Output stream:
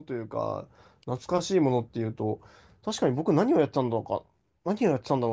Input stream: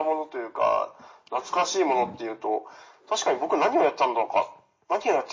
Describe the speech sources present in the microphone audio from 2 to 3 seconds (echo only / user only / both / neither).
echo only